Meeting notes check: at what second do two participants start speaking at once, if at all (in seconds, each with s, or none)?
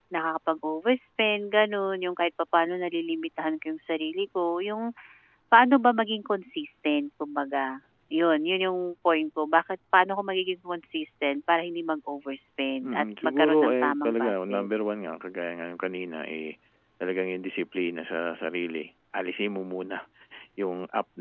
12.8 s